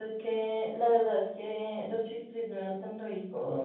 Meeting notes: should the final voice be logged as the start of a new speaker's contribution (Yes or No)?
Yes